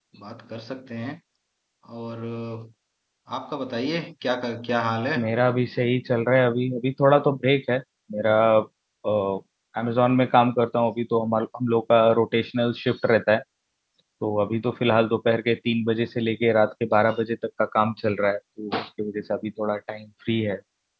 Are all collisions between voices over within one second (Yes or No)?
Yes